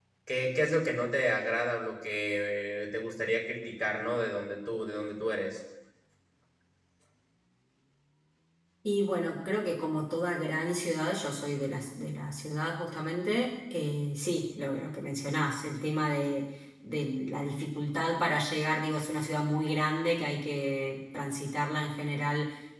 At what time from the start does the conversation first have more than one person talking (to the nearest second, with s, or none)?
none